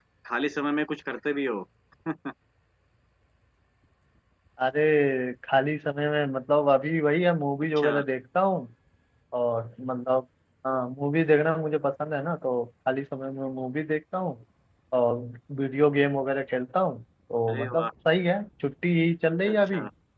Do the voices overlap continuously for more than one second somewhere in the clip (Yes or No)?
No